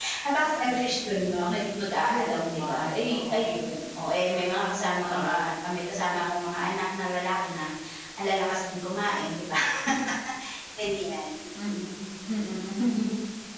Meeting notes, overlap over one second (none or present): present